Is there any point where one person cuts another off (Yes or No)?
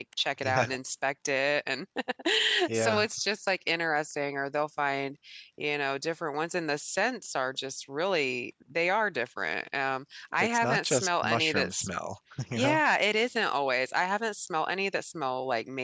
Yes